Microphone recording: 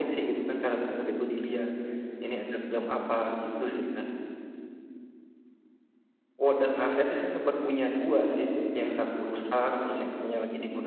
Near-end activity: none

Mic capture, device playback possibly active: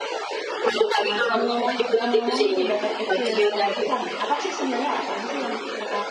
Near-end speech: present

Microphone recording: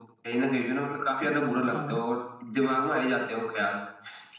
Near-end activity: present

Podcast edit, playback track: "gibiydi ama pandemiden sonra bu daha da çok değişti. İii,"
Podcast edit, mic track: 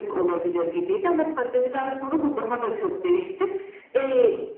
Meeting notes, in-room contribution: none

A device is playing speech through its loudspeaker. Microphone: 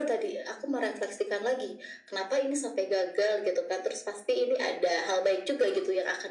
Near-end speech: none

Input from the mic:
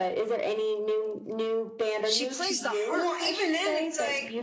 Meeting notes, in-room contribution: present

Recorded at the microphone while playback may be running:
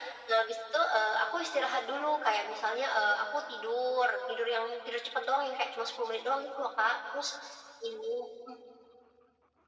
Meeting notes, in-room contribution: none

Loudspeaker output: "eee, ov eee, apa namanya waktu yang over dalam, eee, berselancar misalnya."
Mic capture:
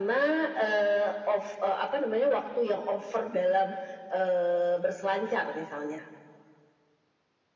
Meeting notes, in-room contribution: none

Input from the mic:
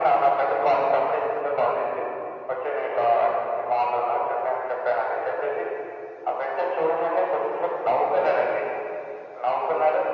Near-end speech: none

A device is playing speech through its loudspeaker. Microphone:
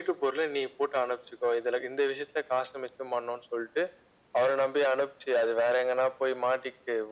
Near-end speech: none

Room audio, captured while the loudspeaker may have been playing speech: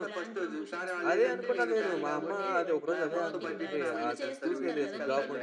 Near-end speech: present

